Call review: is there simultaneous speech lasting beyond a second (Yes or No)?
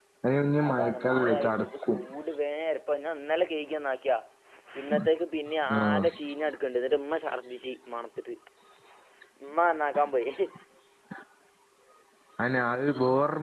Yes